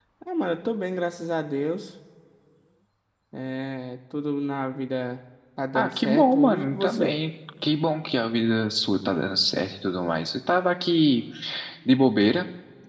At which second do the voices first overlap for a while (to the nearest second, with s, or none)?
6 s